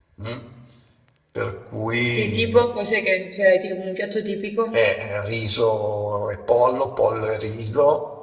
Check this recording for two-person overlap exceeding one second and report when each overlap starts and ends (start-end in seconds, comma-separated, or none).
none